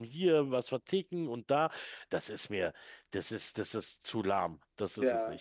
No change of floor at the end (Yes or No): No